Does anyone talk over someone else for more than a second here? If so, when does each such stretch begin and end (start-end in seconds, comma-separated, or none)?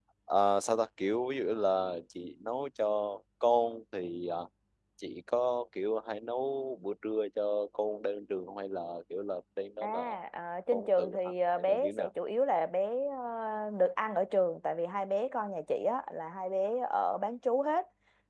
10.7-12.1